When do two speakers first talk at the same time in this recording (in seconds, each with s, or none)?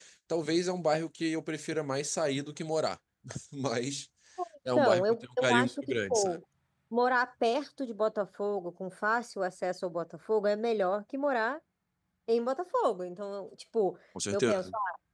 4.8 s